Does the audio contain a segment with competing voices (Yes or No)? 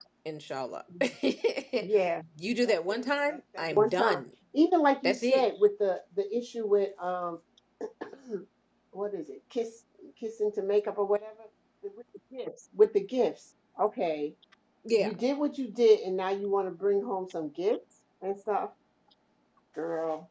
Yes